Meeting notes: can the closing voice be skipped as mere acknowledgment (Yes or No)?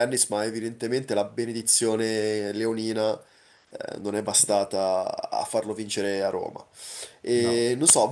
Yes